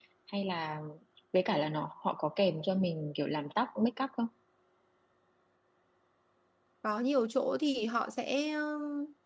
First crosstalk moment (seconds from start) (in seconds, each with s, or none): none